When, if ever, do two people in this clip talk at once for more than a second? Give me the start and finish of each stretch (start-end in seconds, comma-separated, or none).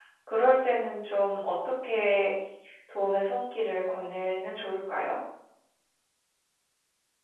none